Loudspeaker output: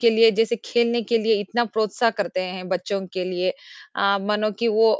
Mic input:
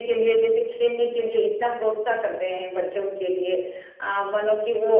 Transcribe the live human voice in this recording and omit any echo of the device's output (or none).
none